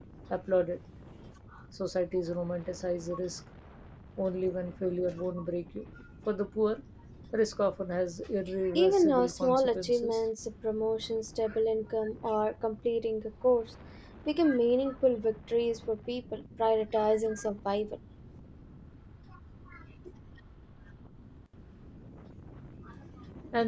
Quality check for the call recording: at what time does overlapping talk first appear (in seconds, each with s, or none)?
8.7 s